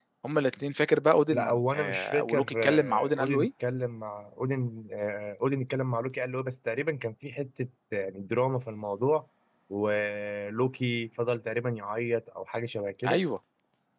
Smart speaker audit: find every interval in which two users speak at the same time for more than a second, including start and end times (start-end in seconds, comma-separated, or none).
1.3-3.5